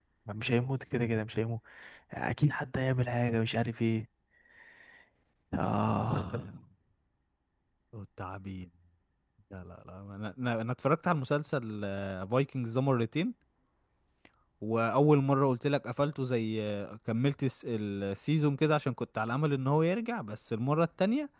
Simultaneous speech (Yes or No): No